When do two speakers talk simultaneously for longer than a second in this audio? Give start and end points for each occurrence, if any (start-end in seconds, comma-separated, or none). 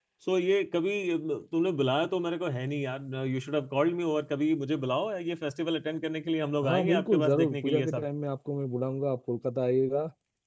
6.6-8.1